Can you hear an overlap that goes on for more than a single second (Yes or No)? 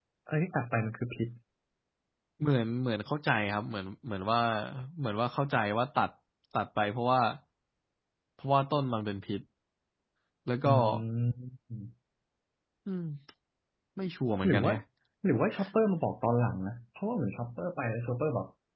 No